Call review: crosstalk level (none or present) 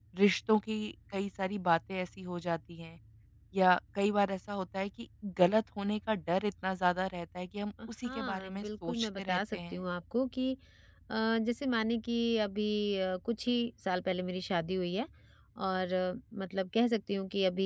present